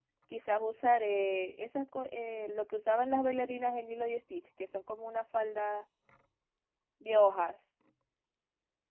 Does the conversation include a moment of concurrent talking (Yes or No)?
No